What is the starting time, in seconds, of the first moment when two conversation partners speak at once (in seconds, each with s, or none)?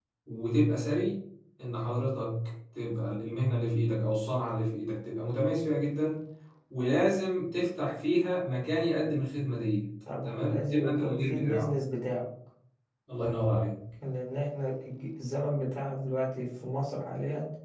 10.1 s